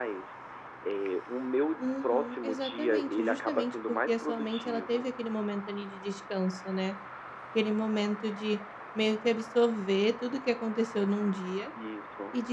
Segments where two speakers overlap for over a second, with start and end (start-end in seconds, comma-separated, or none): 1.8-5.1